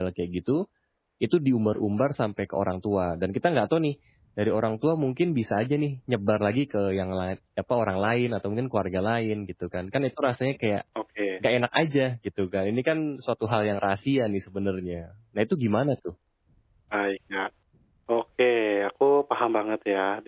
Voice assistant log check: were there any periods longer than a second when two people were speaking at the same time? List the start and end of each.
none

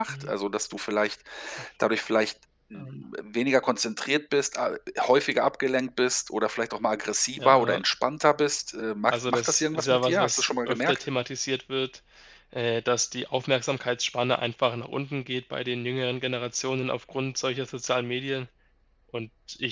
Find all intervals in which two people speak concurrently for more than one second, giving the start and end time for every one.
9.1-11.0

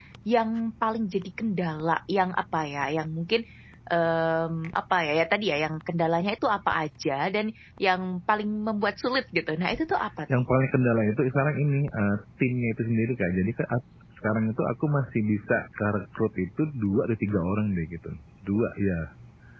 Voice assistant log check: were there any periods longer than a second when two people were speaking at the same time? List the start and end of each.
none

